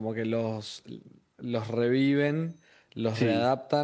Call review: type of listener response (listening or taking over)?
listening